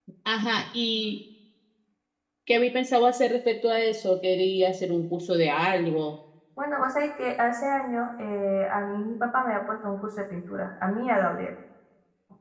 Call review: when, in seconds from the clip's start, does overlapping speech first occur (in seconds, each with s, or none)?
none